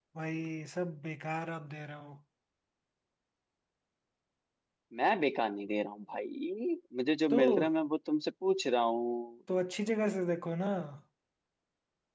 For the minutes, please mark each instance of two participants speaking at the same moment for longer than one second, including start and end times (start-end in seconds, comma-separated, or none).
none